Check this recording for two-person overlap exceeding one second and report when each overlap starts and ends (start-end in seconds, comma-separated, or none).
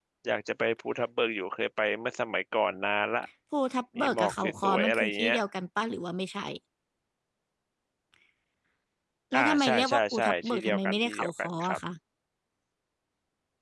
4.0-5.4, 9.4-11.8